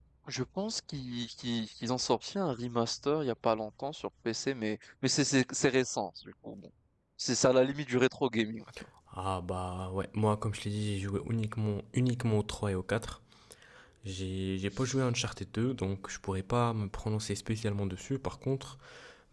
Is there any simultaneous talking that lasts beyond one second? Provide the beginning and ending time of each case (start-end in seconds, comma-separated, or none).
none